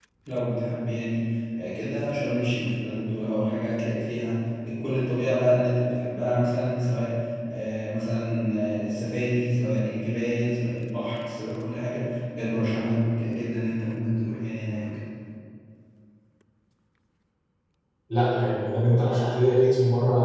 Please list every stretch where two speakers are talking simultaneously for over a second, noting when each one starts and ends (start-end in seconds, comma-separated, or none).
none